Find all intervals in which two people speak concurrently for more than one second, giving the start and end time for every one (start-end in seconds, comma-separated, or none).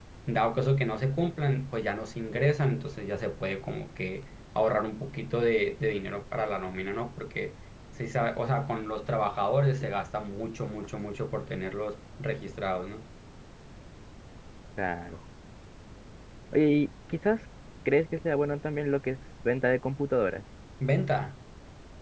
none